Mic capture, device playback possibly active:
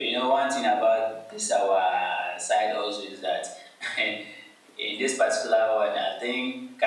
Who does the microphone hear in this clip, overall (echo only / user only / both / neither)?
echo only